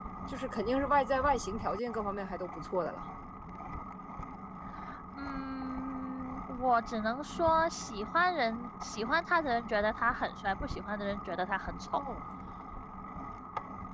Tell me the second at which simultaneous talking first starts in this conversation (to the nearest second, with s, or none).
none